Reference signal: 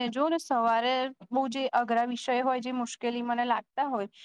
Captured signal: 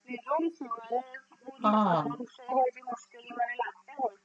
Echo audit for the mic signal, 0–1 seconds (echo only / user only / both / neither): echo only